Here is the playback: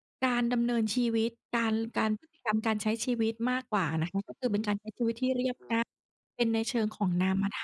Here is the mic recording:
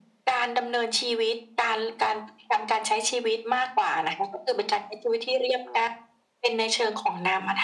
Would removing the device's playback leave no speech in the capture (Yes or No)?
Yes